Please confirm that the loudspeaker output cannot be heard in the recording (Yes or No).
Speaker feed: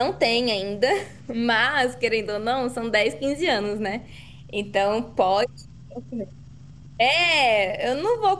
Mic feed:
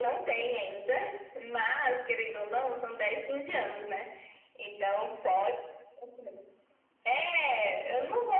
No